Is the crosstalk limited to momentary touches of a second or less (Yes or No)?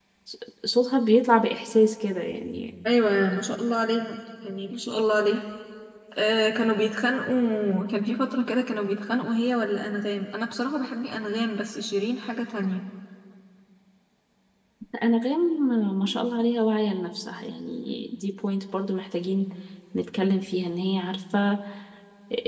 Yes